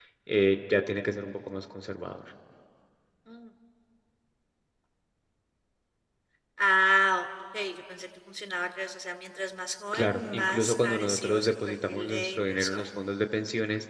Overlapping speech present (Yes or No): Yes